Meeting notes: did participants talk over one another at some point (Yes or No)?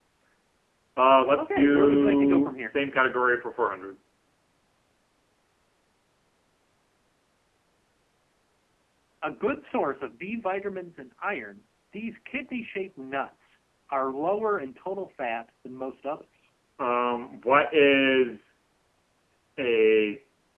Yes